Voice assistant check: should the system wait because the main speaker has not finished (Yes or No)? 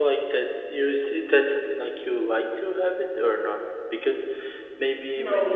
Yes